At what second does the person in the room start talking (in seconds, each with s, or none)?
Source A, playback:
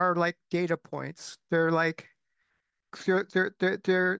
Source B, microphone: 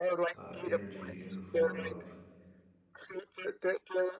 0.3 s